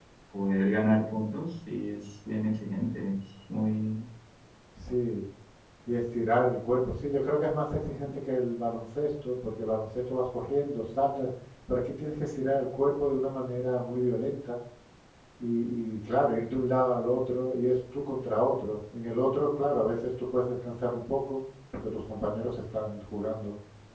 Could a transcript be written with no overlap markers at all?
Yes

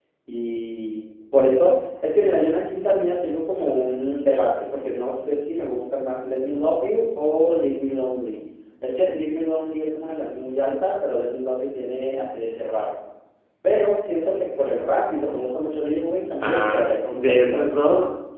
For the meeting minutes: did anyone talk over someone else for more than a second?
Yes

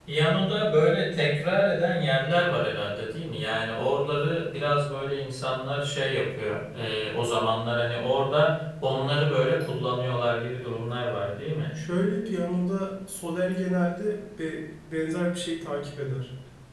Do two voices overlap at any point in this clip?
No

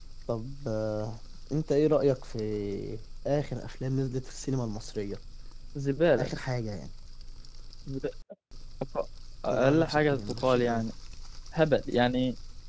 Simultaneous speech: Yes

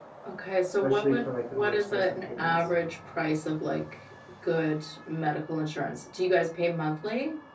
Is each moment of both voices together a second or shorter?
No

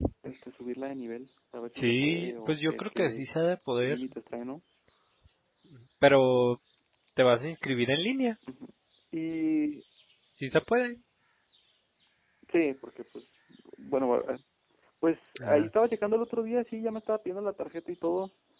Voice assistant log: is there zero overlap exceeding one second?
No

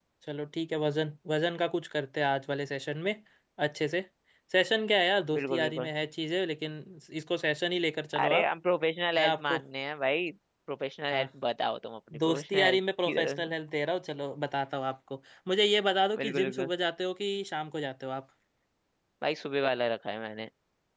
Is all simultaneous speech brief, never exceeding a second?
No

